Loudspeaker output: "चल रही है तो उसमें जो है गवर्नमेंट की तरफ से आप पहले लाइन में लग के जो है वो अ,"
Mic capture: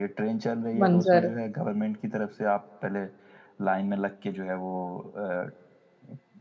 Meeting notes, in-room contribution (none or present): present